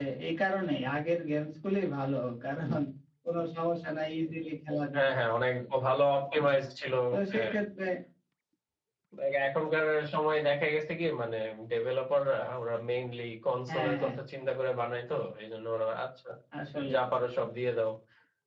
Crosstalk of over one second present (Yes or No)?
No